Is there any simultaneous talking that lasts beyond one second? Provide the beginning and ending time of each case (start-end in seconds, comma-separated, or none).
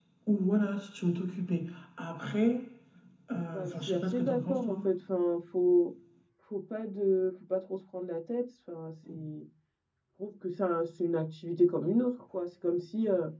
3.5-4.8